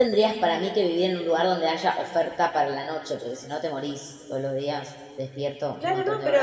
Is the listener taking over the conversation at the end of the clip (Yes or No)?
Yes